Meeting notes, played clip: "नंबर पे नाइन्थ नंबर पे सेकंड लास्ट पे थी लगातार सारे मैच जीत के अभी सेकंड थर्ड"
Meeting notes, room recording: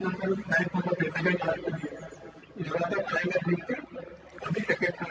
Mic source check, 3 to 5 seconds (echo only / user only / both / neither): echo only